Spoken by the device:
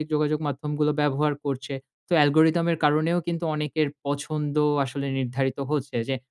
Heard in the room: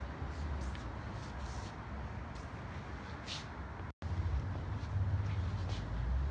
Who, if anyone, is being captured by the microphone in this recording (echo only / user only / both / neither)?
neither